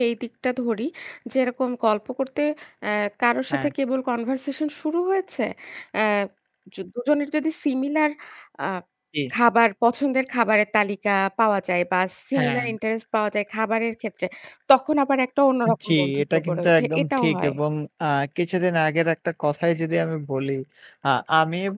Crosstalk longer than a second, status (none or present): present